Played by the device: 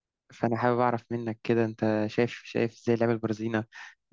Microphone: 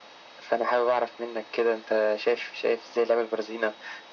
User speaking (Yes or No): No